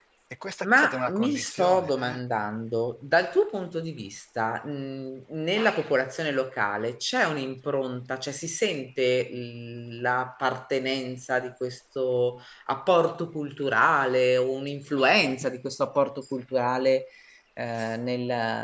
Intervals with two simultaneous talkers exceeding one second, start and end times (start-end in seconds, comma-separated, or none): 0.6-1.9